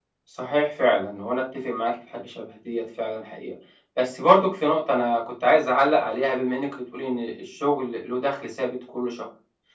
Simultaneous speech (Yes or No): No